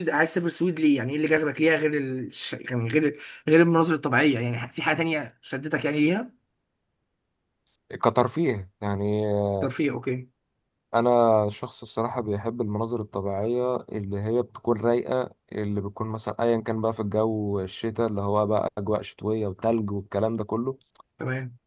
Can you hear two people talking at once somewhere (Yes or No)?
No